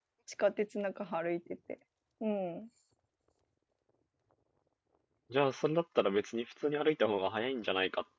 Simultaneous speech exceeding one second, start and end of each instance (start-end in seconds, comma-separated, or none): none